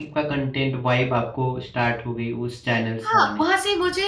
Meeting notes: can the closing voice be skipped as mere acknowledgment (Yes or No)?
No